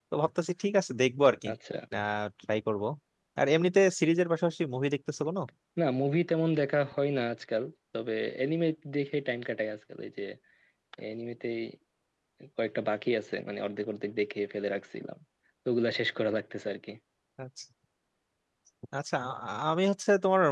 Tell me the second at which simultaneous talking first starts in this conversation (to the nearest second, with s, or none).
none